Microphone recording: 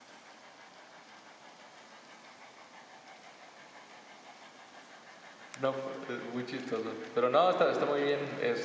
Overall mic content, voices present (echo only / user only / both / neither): user only